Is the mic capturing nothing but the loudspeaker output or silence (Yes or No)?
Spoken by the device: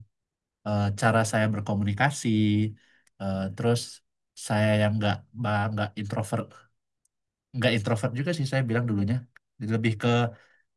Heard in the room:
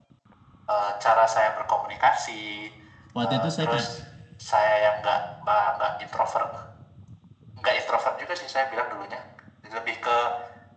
No